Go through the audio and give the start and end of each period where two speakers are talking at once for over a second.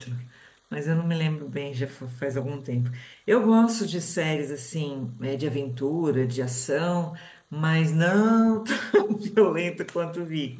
none

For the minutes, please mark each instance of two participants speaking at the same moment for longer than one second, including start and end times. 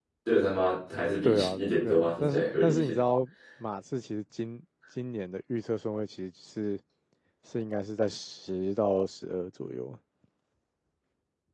1.2-3.0

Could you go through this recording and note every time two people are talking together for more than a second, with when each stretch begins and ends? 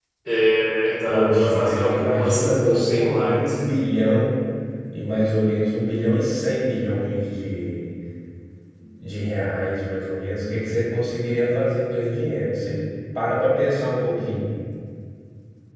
1.1-3.5

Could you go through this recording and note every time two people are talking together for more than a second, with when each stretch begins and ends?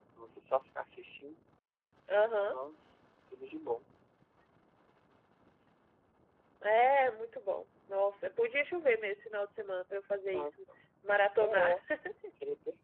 none

